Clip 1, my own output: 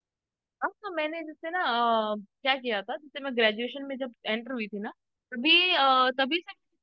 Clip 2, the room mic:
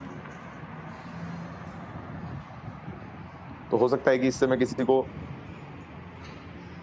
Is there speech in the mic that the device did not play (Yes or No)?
Yes